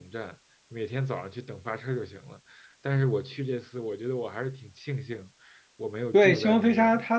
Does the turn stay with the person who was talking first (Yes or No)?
No